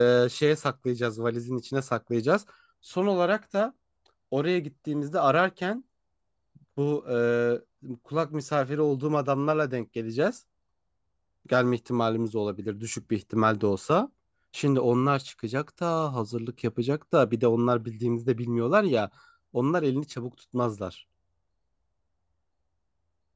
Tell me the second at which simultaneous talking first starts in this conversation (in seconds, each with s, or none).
none